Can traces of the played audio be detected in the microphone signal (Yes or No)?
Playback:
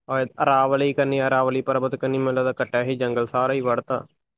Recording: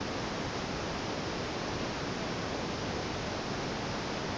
No